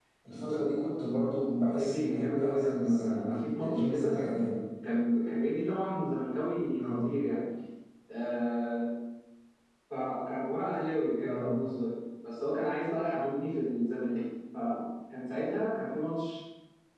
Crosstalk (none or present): present